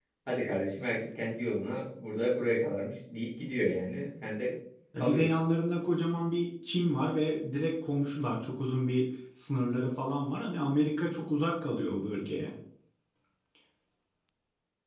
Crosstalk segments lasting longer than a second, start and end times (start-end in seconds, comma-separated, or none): none